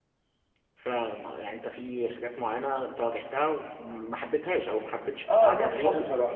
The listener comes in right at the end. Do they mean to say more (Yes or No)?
Yes